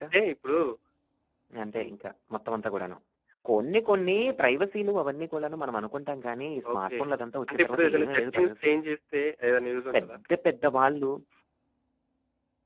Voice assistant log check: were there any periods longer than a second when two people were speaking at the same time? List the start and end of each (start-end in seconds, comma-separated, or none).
7.5-8.7